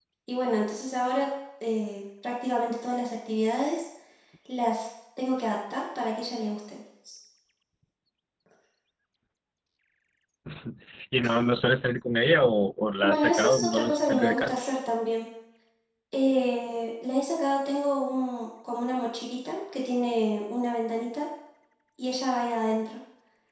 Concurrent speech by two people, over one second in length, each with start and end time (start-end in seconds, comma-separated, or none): 13.0-14.5